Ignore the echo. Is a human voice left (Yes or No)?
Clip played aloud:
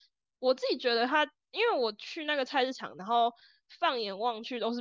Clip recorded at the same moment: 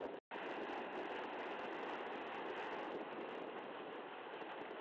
No